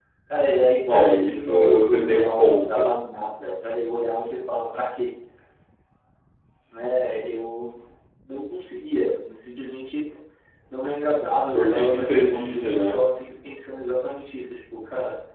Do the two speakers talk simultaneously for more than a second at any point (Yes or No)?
Yes